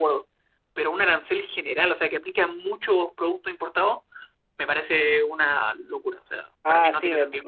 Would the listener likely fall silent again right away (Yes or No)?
No